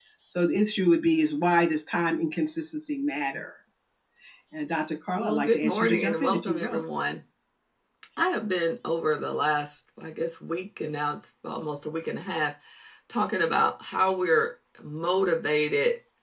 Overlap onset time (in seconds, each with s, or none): 5.2 s